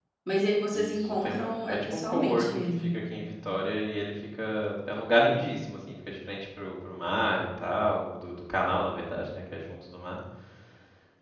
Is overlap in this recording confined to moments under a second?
No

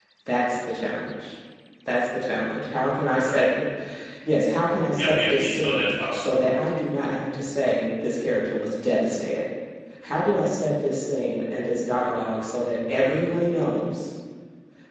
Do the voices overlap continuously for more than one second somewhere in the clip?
Yes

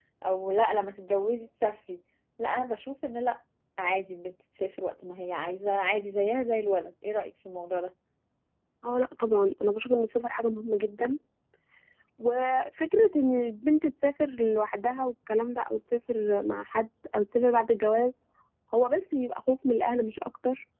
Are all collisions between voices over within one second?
Yes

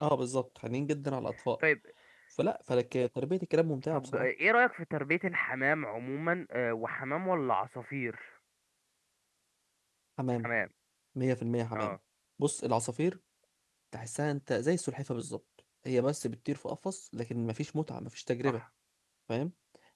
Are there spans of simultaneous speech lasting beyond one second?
No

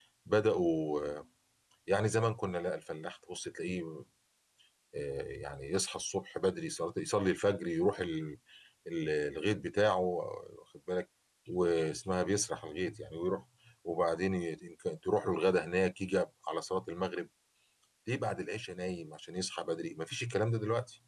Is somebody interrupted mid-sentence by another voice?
No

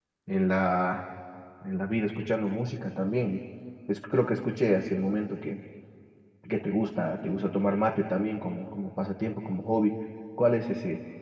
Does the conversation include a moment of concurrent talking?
No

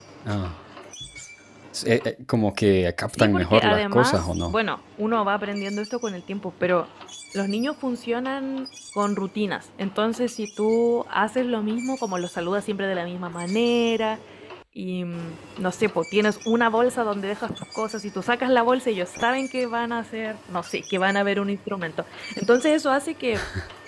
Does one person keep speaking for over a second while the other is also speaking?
Yes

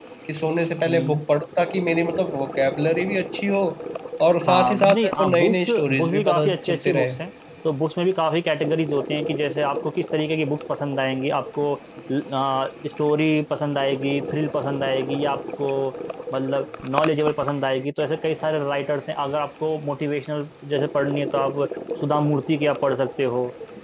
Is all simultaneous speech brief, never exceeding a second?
No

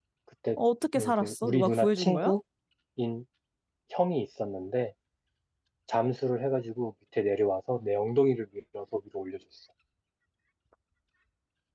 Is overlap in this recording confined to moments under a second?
No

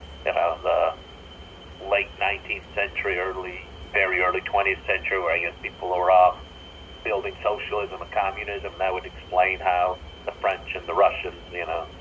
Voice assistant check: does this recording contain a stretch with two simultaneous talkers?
No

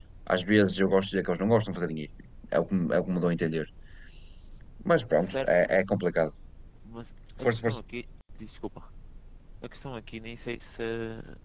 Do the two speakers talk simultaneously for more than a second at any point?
No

